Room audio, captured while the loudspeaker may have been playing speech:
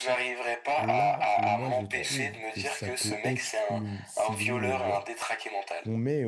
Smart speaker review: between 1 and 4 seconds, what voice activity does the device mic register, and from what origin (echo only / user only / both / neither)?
both